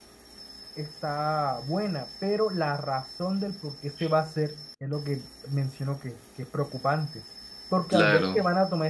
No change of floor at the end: Yes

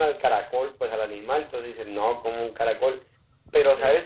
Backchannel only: Yes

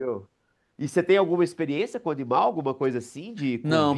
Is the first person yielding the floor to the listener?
Yes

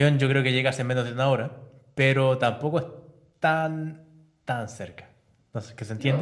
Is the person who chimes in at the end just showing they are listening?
Yes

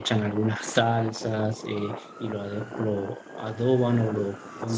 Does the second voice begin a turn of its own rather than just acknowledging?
No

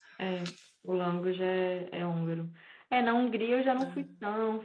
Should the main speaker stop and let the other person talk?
No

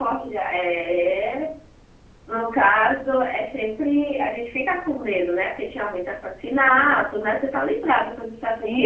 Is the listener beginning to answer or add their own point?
Yes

